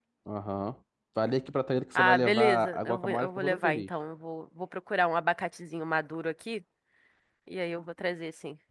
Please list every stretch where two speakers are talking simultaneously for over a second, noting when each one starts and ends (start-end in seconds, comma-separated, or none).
2.0-3.9